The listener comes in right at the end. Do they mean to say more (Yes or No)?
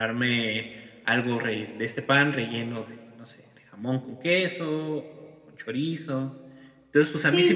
Yes